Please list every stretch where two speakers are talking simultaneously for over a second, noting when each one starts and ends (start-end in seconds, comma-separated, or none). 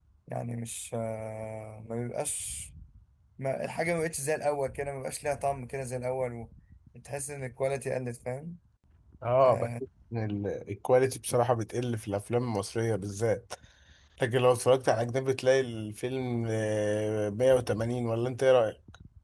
none